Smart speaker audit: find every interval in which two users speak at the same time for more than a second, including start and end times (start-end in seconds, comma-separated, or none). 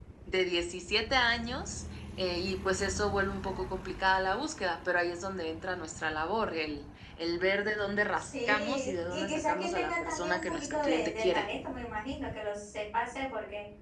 8.2-11.5